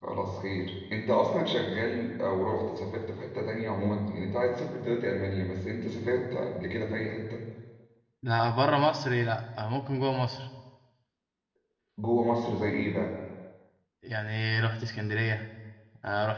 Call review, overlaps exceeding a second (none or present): none